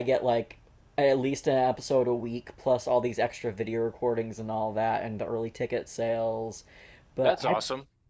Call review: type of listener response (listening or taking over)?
taking over